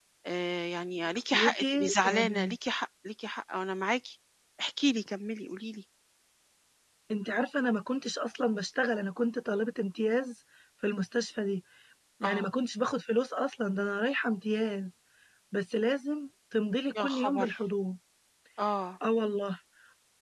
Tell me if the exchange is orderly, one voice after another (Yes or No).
No